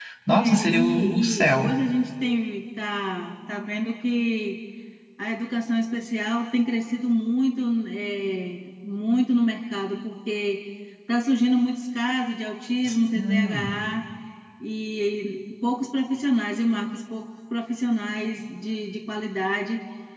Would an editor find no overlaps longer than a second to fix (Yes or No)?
No